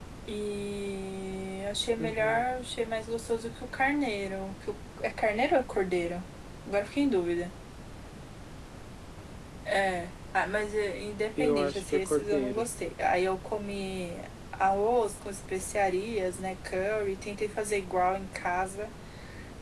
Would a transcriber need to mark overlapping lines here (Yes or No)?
Yes